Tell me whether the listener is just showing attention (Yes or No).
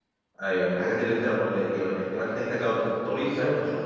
No